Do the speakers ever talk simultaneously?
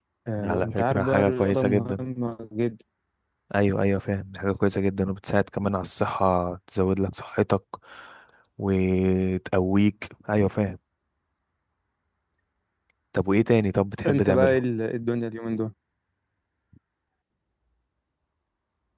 Yes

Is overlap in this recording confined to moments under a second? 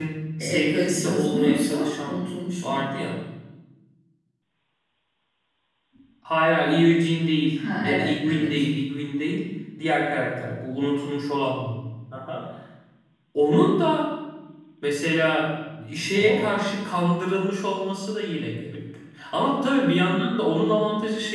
No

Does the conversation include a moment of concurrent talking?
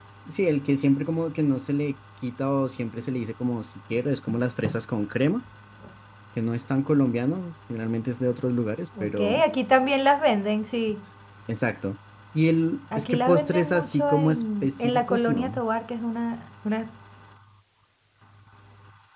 Yes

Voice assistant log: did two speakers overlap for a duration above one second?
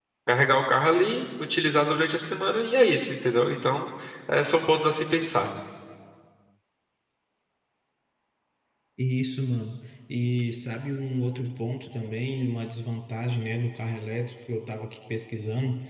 No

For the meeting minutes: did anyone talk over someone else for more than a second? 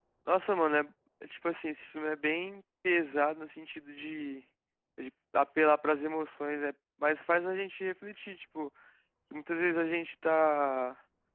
No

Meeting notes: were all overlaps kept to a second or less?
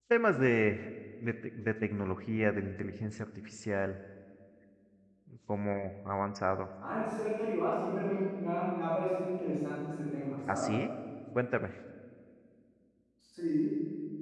Yes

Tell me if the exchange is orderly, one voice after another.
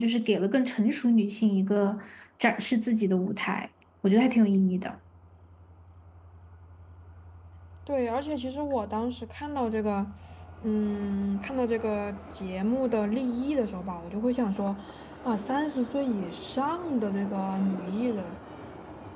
Yes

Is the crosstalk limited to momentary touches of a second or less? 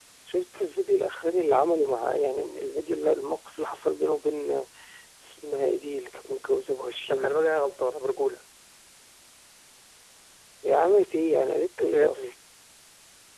Yes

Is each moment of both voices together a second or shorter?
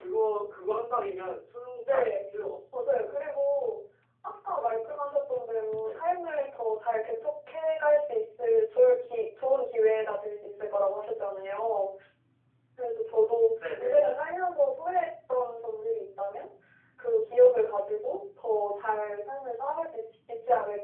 Yes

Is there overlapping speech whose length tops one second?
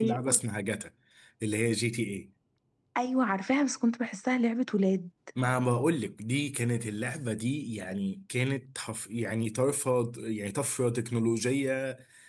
No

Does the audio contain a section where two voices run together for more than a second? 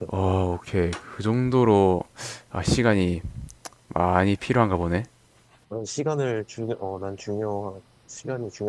No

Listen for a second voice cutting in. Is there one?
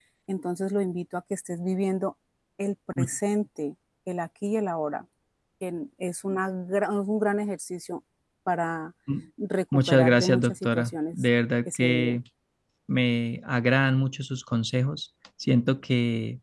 Yes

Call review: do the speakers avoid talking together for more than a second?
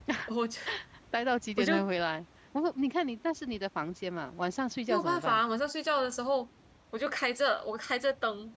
Yes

